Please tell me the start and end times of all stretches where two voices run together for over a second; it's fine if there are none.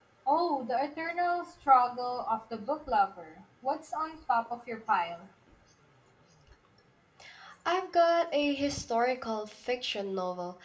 none

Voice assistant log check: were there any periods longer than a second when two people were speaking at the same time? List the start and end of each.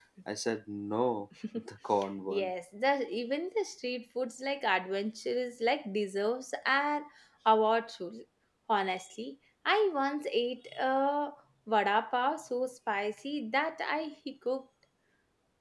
none

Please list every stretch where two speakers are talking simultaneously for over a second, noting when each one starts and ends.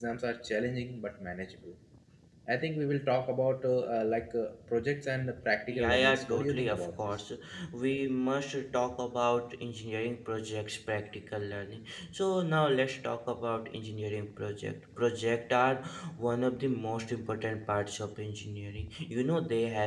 5.7-7.2

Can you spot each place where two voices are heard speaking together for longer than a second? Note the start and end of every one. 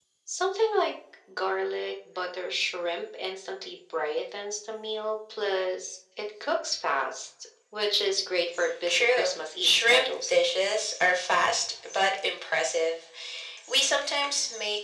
8.9-10.3

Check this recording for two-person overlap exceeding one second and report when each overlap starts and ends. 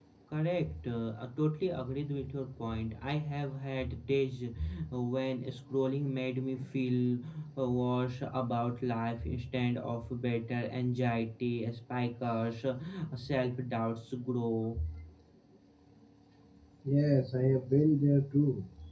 none

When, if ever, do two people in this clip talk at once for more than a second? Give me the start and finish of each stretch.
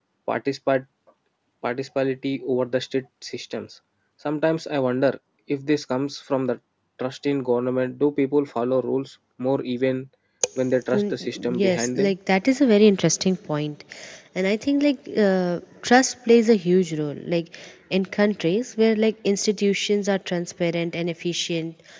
10.9-12.1

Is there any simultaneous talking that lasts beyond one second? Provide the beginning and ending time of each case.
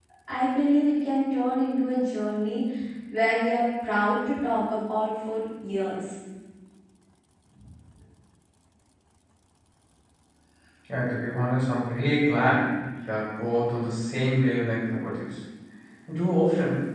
none

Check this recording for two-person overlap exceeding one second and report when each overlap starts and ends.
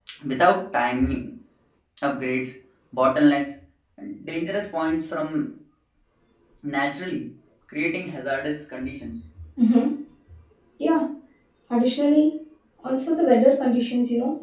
none

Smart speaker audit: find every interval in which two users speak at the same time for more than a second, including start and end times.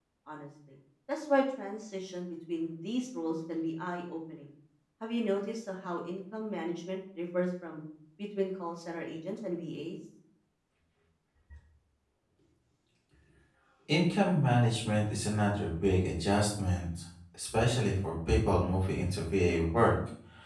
none

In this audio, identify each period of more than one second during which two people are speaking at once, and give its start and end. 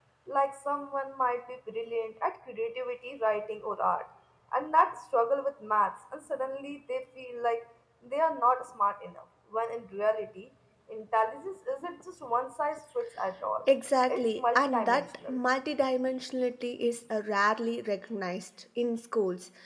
14.1-15.4

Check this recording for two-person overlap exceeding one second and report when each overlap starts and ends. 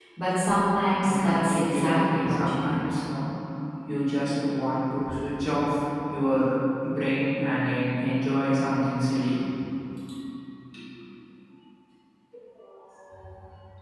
1.0-2.8

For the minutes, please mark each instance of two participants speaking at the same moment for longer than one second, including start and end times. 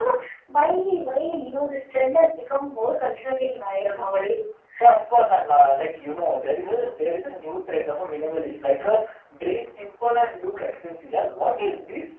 none

